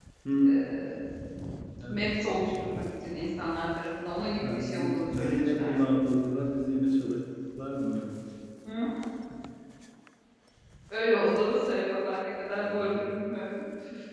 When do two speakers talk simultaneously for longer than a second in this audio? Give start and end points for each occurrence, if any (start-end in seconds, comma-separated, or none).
4.4-5.8